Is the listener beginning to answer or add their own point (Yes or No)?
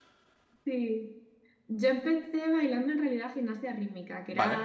No